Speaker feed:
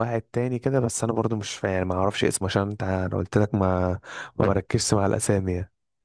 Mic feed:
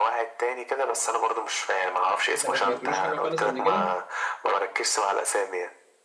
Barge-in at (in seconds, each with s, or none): 2.4 s